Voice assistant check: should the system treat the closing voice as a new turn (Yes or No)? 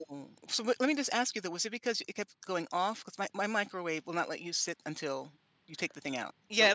Yes